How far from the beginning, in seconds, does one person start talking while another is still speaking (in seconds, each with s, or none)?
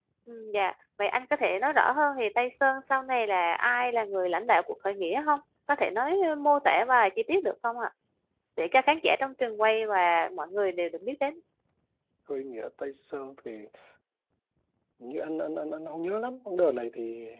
none